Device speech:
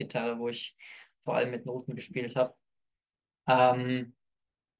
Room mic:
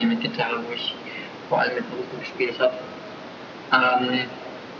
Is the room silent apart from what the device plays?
Yes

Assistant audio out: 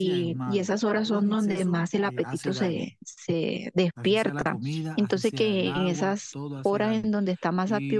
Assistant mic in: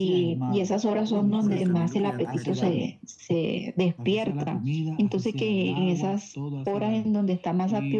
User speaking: Yes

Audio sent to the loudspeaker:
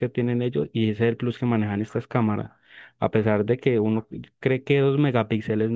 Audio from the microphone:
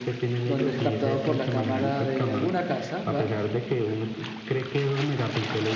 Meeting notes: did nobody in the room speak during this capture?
No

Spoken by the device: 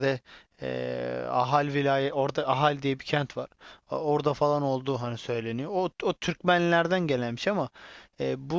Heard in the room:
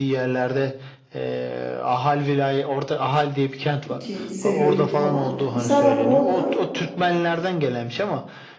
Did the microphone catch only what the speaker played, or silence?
No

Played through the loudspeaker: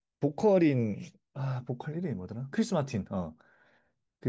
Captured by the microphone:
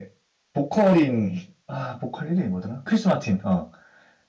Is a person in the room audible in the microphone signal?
No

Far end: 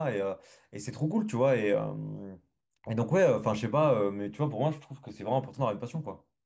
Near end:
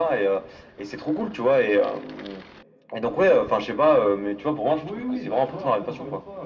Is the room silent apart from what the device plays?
No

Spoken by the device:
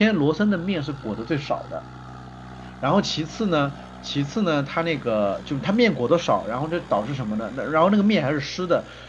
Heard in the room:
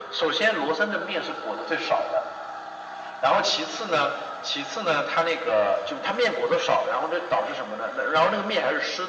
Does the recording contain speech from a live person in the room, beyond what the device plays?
No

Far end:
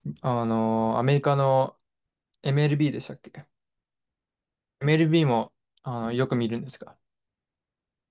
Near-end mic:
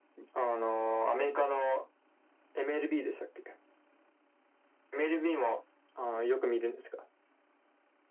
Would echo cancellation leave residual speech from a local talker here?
No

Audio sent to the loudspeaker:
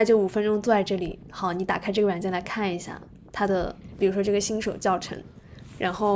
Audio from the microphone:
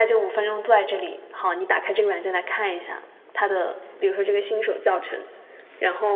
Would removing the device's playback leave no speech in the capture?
Yes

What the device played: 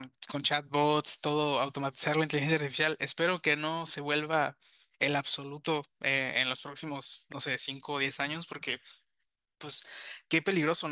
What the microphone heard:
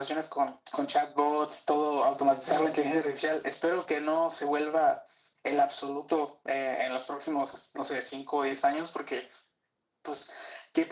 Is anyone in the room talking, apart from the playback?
Yes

